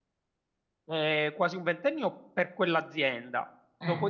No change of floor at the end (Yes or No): Yes